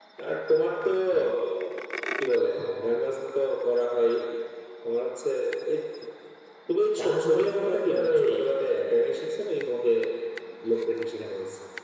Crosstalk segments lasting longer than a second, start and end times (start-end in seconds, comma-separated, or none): 7.0-8.2